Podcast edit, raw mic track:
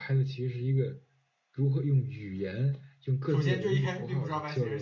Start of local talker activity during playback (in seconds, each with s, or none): 3.2 s